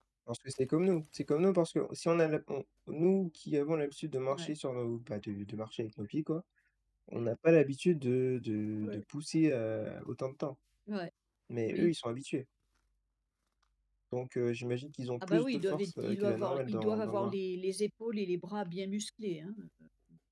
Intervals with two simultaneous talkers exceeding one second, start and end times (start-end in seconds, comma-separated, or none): 15.3-17.3